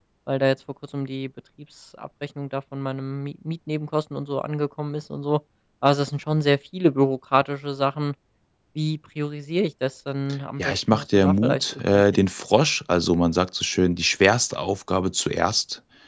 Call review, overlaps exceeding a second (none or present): present